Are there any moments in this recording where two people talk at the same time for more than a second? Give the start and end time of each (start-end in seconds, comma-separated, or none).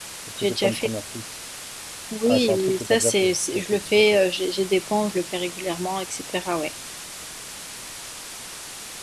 2.3-4.2